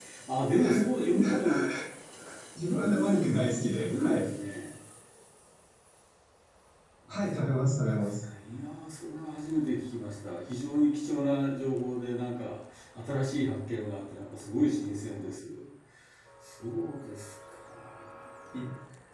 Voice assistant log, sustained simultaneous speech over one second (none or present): present